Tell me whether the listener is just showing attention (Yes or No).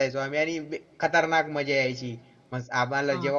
Yes